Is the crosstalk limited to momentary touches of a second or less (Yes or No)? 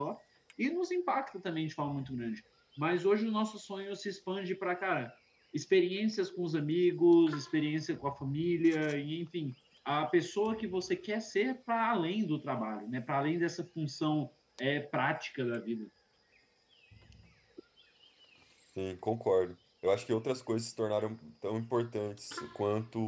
Yes